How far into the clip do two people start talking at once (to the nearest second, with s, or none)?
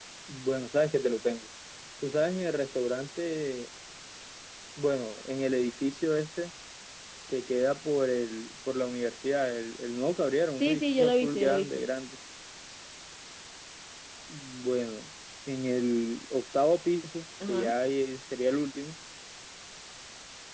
11 s